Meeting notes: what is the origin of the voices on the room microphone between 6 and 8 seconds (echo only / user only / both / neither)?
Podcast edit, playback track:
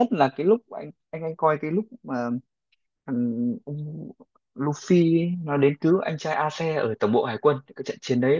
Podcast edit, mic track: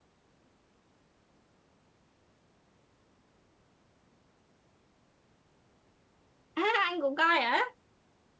user only